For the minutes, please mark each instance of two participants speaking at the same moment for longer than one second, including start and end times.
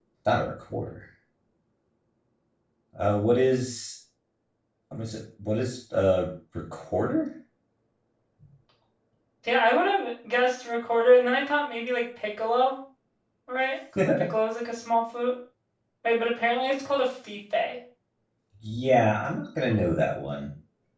none

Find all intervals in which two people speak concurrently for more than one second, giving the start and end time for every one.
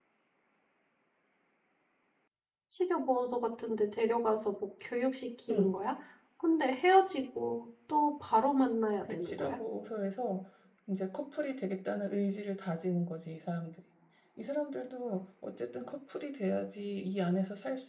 none

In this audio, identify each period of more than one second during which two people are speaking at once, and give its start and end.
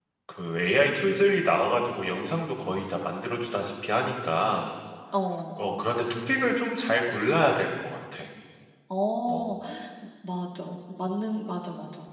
none

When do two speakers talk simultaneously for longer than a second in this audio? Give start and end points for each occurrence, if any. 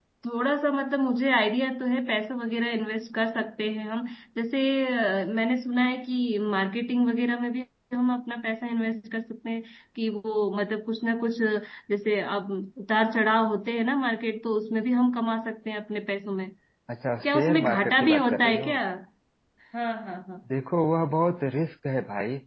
17.2-18.7

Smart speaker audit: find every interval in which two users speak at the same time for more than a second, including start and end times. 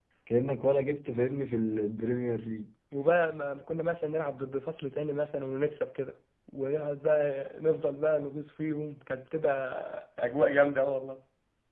none

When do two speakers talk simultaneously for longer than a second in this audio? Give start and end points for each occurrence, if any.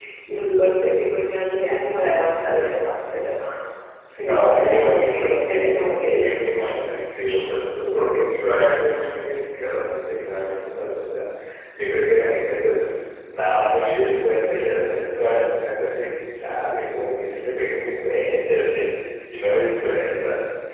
4.3-6.3

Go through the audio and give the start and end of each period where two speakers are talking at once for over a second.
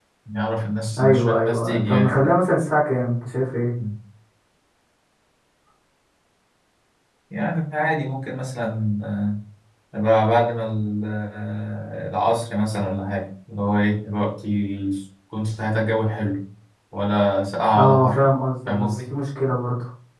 1.0-2.3

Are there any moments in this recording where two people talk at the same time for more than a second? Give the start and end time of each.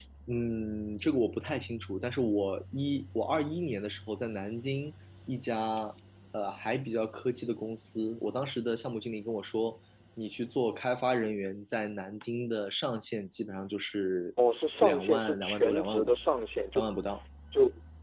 14.8-16.1

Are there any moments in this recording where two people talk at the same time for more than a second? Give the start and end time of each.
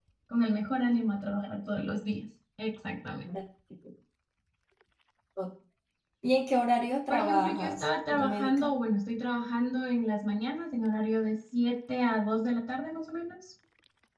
7.1-8.8

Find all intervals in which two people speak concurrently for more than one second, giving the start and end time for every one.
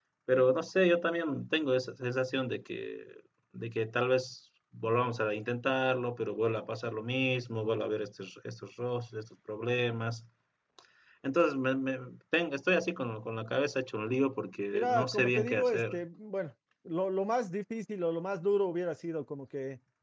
14.7-16.0

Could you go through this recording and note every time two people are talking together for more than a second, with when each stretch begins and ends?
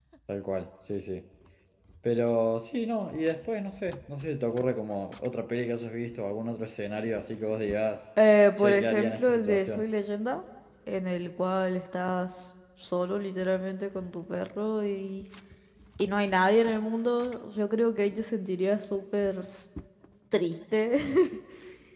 8.6-9.8

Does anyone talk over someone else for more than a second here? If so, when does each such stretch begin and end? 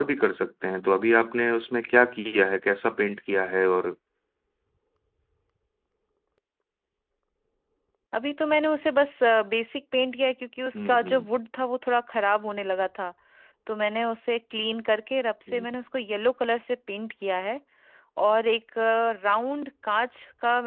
none

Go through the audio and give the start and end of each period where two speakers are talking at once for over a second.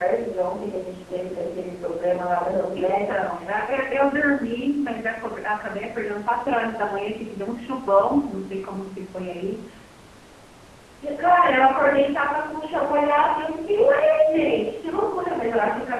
none

